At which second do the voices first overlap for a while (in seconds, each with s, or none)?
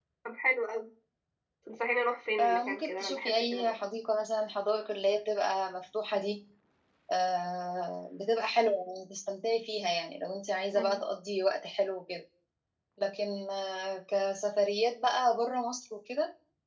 2.4 s